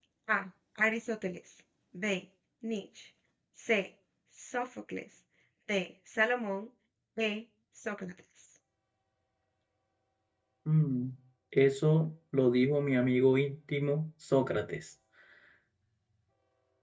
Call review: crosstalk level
none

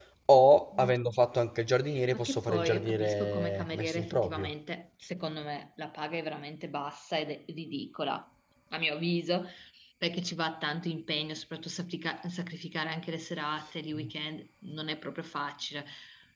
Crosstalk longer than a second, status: present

